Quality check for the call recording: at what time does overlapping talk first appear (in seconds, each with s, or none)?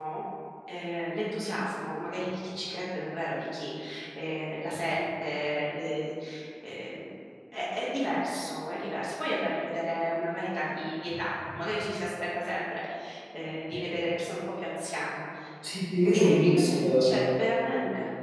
16.1 s